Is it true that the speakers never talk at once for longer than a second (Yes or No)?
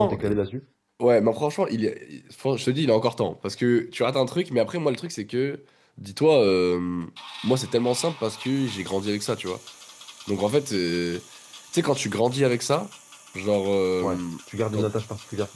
Yes